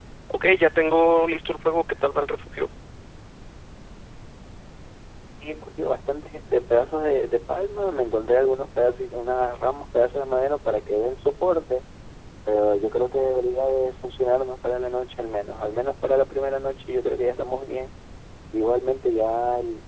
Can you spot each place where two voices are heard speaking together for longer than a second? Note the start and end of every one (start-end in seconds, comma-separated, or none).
none